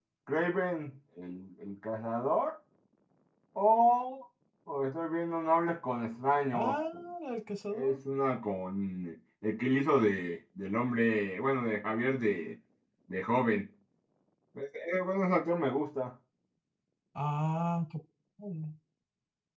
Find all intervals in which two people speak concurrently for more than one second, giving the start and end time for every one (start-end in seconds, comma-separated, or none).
none